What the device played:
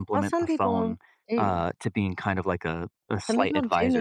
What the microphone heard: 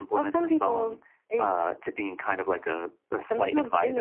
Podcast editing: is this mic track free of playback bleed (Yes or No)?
No